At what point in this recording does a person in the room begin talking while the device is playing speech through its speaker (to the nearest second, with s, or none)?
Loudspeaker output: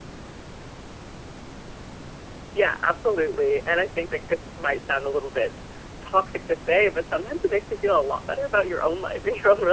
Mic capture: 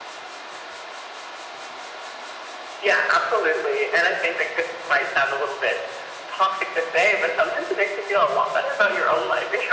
none